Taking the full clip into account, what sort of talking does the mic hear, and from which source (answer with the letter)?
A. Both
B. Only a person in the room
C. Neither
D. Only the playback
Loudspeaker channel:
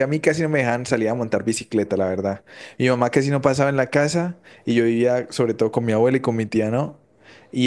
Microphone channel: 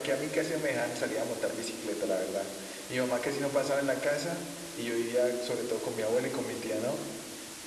D